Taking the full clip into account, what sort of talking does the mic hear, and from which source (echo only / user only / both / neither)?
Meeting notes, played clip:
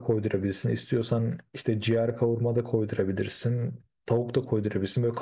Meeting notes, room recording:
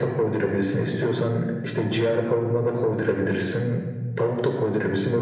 echo only